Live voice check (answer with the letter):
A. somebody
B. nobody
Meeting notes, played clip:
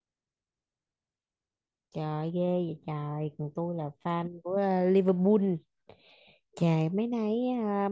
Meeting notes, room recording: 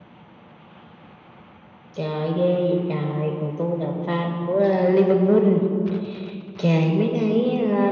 B